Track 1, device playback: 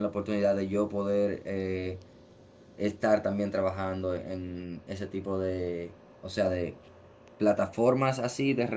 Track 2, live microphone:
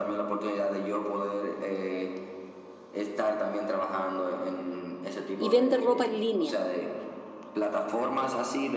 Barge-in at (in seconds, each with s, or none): 5.4 s